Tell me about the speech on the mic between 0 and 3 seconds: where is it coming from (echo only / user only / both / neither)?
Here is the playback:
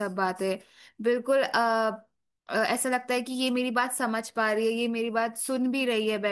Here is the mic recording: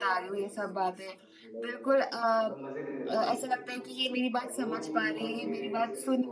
both